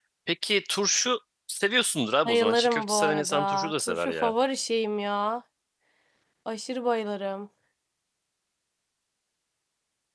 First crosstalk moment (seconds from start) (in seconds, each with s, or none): 2.2 s